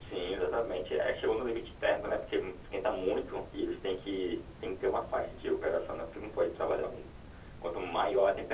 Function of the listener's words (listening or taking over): listening